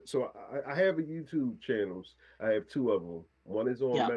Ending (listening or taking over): listening